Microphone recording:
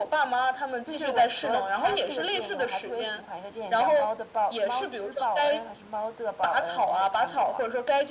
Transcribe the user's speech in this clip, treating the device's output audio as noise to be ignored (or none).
none